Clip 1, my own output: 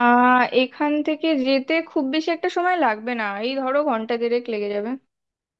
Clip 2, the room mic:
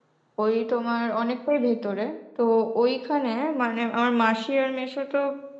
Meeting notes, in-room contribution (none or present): present